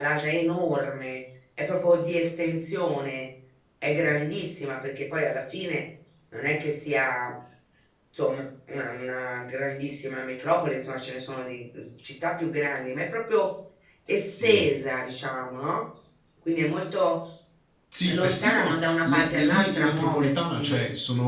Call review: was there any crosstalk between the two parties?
Yes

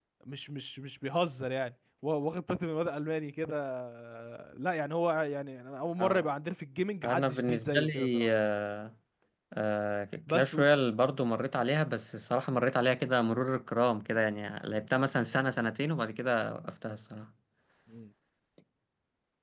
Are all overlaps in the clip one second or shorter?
No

